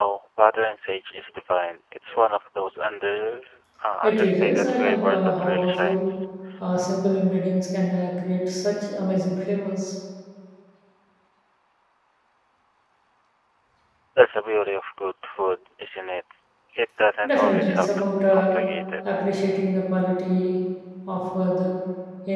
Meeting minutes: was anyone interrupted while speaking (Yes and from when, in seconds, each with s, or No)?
Yes, from 4.0 s